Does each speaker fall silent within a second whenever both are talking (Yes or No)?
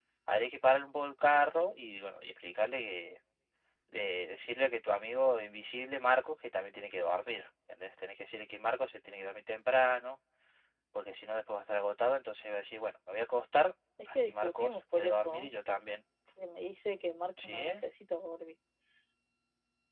No